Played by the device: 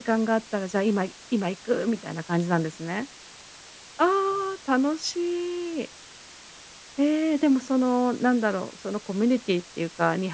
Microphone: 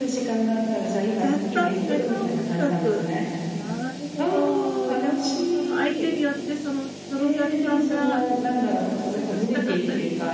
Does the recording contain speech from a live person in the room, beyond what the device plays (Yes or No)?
Yes